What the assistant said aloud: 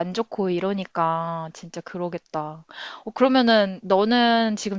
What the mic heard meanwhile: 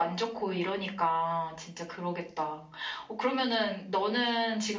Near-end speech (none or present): none